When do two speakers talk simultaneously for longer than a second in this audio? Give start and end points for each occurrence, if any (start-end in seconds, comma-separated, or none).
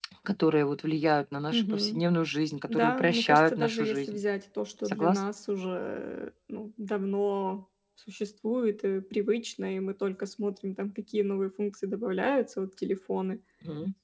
2.7-4.2